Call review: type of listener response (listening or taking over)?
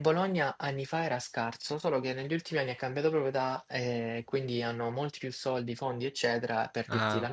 listening